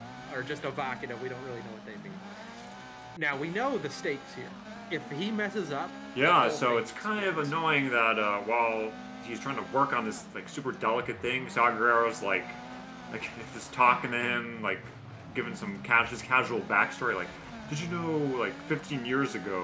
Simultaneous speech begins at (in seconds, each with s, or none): 6.2 s